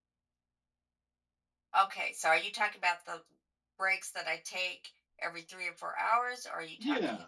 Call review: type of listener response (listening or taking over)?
taking over